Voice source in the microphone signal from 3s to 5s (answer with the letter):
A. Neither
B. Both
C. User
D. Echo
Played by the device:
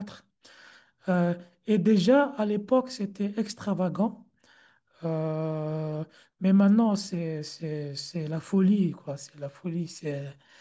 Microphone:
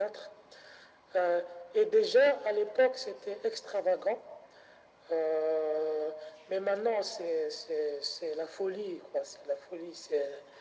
D